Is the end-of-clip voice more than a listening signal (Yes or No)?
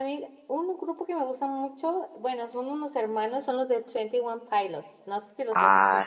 Yes